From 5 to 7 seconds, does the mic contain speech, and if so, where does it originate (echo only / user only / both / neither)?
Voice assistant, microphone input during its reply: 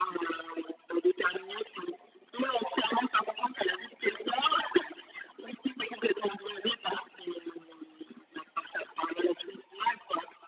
echo only